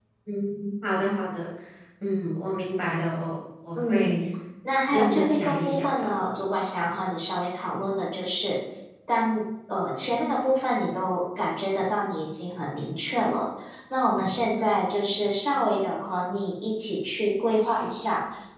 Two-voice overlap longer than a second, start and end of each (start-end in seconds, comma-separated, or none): 4.9-6.1